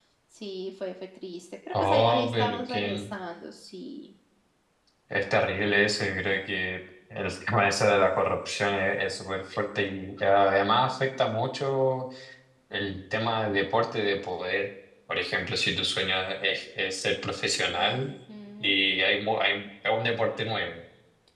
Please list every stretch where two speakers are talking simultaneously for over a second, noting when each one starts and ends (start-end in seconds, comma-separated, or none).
1.7-3.1